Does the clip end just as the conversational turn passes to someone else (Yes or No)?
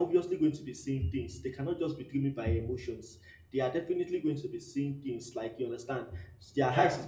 No